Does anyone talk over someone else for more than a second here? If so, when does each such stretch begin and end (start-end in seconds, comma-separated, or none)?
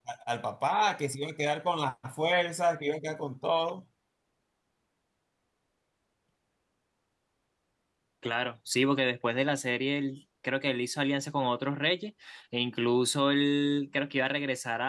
none